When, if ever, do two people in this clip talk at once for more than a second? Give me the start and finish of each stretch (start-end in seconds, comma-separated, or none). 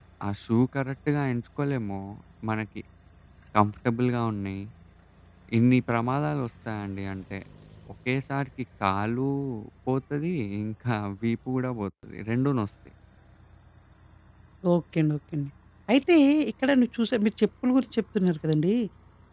none